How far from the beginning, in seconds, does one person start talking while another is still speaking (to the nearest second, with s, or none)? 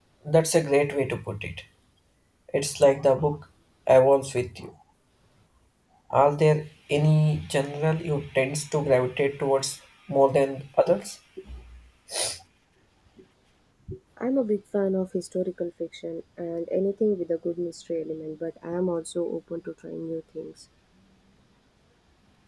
none